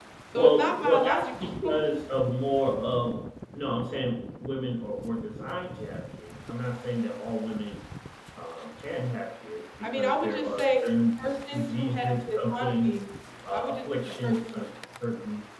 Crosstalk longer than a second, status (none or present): present